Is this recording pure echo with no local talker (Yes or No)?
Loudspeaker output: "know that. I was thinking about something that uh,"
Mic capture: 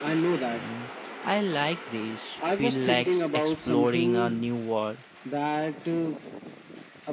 No